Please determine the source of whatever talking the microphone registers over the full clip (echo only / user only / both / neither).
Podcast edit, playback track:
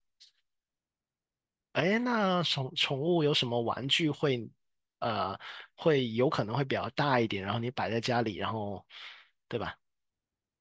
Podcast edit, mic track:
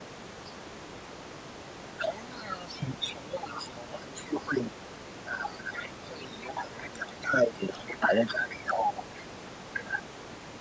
echo only